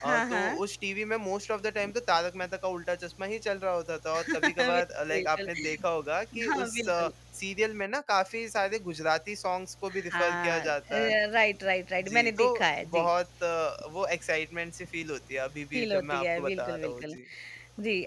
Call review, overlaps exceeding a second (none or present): present